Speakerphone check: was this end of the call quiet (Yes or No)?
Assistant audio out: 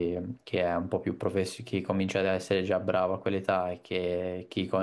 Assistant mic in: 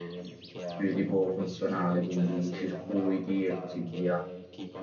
No